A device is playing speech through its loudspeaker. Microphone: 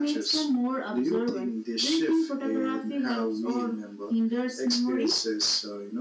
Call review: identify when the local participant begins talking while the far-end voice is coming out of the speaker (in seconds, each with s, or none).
none